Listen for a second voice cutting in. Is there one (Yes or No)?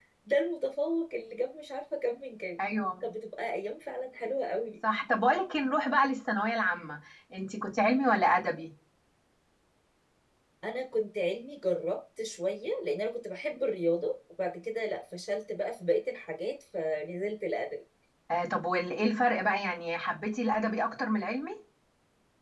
No